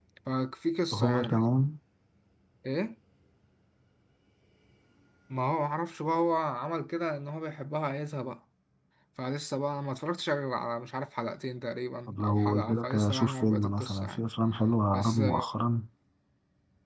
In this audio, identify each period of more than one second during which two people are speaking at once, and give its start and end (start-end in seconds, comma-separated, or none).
12.1-14.2